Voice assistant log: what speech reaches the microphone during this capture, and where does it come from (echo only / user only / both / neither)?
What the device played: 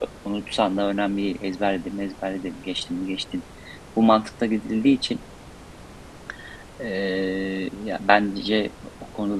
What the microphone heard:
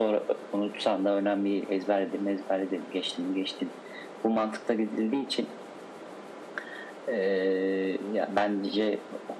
echo only